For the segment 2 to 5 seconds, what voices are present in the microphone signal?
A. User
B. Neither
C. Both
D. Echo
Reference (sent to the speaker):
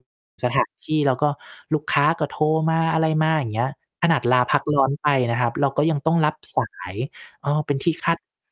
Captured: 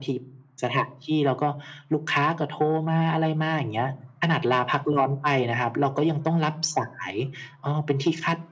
D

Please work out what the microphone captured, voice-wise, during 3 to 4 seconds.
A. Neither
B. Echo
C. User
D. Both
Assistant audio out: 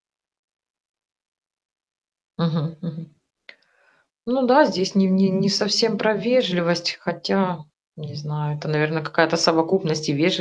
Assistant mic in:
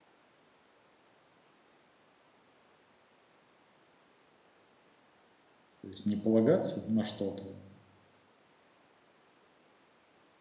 A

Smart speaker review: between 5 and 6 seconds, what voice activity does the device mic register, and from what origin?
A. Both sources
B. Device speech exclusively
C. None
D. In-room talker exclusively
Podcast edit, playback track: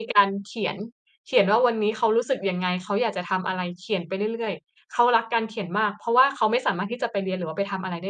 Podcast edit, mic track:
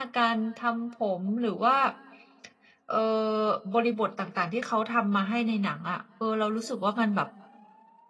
D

